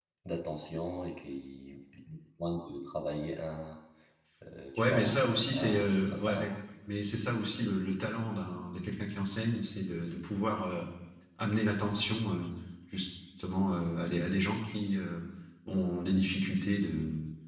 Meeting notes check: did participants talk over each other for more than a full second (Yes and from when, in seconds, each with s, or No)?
Yes, from 4.8 s